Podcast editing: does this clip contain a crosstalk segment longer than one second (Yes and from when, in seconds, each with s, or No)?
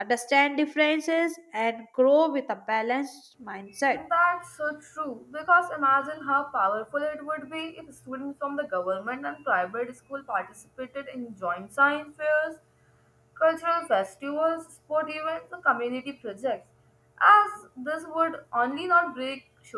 No